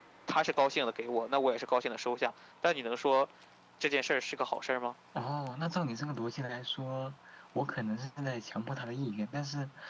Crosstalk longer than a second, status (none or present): none